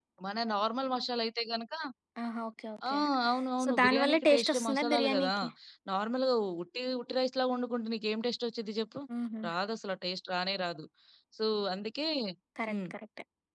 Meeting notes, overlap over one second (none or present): present